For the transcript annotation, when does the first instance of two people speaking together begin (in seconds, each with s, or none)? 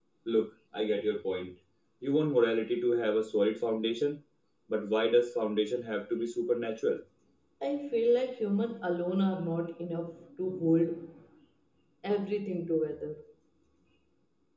none